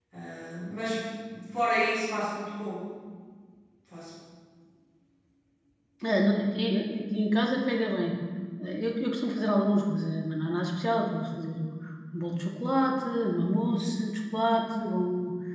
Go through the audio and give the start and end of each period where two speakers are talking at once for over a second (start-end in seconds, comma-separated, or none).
none